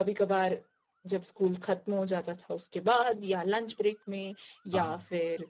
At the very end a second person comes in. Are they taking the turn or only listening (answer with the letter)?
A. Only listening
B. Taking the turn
A